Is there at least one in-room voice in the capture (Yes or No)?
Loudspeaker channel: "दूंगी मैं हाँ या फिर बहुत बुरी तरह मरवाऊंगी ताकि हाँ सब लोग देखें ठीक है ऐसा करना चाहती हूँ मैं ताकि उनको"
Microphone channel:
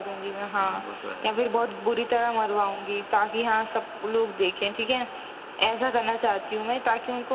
Yes